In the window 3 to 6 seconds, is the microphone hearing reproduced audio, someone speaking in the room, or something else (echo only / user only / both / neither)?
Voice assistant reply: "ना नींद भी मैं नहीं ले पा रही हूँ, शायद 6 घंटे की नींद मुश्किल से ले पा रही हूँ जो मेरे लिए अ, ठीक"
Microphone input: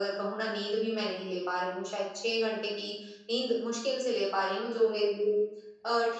echo only